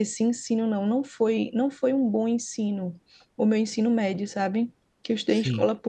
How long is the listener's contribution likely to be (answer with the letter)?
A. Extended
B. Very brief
B